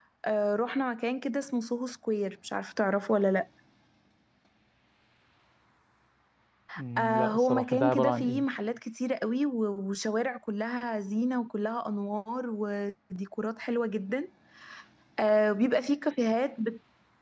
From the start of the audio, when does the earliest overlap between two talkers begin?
7.0 s

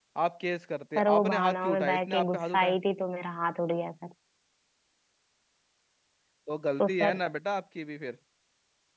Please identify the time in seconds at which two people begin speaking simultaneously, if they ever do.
1.0 s

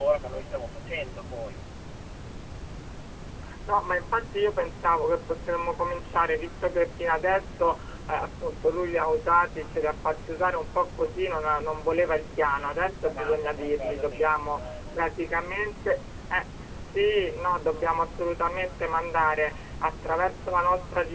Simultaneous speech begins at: 12.4 s

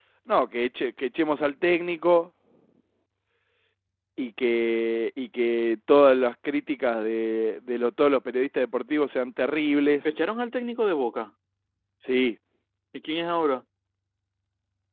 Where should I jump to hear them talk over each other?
none

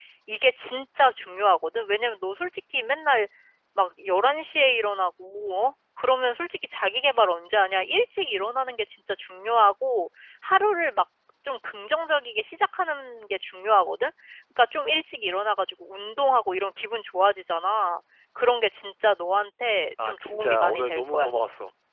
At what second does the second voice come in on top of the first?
20.0 s

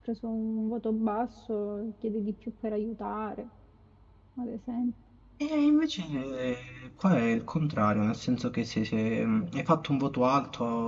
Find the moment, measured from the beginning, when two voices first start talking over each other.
none

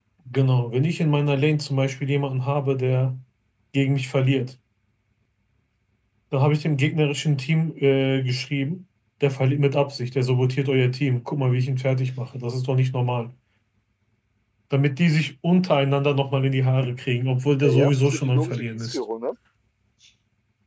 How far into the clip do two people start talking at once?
17.6 s

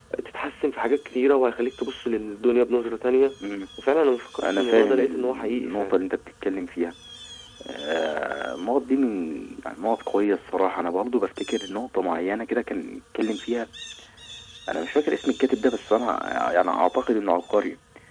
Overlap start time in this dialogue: 4.4 s

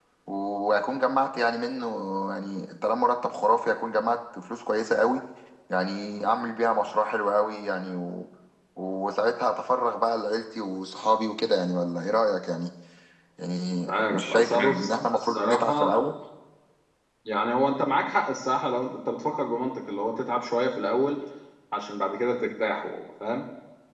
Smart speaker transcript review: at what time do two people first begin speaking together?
13.9 s

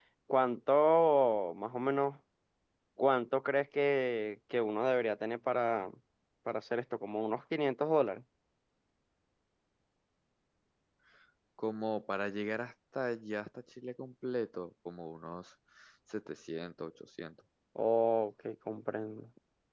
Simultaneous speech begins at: none

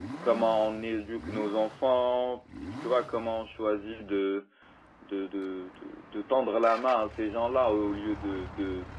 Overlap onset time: none

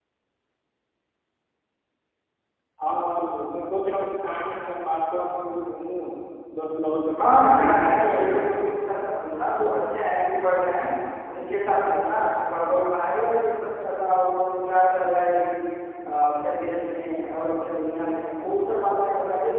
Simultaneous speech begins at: 7.2 s

